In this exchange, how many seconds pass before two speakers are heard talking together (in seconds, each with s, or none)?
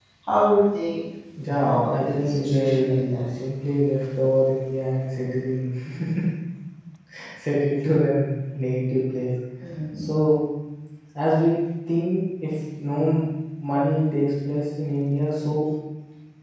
1.6 s